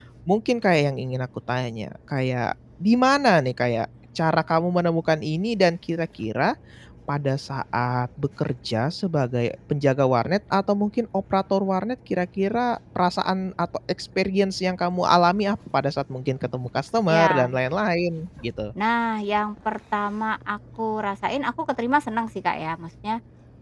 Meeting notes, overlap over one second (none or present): none